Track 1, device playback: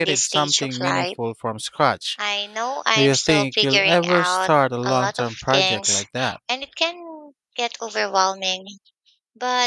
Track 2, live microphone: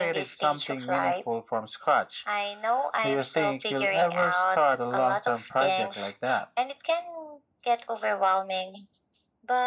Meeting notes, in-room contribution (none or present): none